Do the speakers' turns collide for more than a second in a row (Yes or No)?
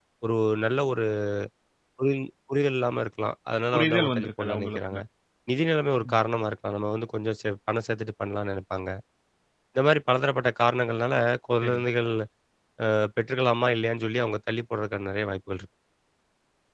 Yes